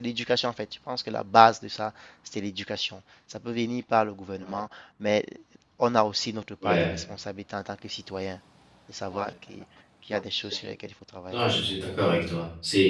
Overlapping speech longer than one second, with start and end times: none

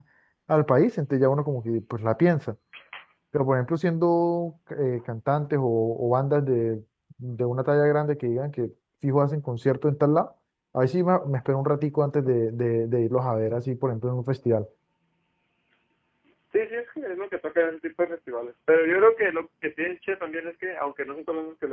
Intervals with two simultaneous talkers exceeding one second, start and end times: none

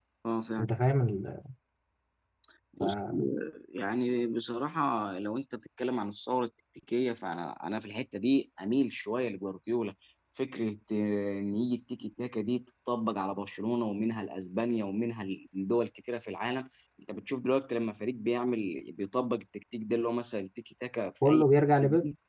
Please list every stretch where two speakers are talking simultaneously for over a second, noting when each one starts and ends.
none

